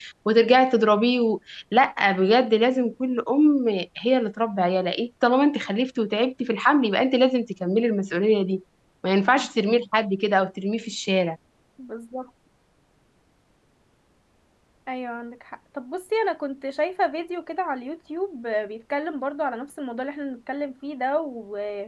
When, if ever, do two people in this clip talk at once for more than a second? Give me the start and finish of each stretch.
none

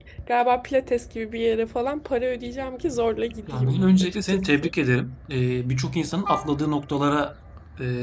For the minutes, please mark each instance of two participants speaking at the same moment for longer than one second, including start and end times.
3.5-4.7

